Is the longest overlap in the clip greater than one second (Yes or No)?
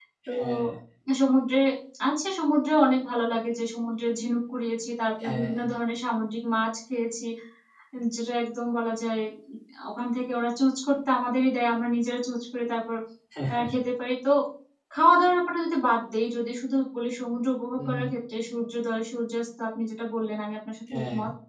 No